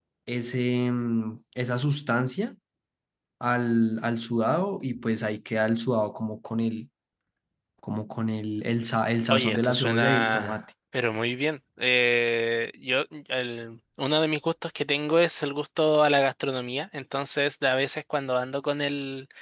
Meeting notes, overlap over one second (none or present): present